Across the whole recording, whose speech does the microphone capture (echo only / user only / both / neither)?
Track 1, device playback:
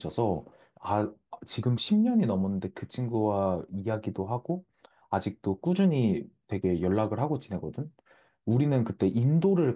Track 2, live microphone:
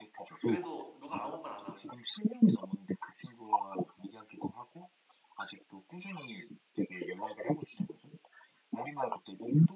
both